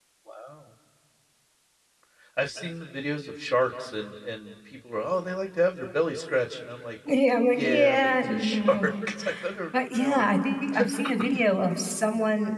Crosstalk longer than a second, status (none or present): present